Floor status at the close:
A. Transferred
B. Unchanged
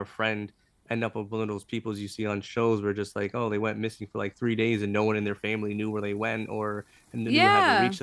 B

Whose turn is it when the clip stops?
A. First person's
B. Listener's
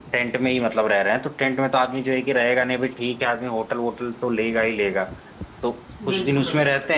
A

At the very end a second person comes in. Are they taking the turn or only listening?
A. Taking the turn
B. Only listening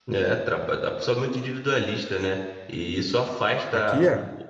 B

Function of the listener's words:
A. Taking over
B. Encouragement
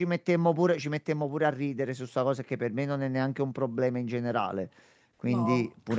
B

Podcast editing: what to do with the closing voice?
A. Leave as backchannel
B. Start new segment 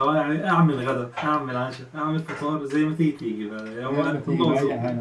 B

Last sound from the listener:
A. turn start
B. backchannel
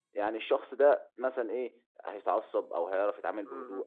A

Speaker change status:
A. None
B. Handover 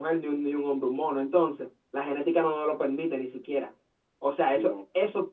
A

